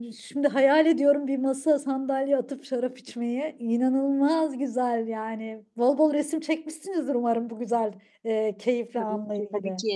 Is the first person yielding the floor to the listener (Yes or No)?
Yes